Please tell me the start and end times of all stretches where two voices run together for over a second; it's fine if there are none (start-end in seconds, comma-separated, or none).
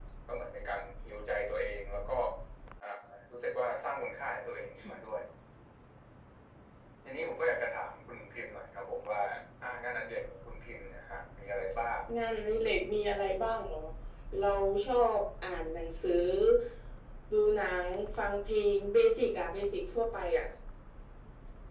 none